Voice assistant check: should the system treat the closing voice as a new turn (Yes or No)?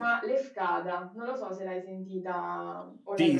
Yes